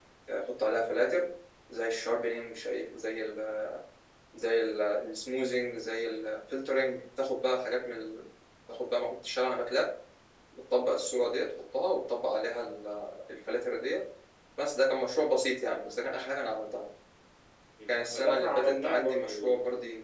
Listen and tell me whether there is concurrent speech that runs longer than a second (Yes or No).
Yes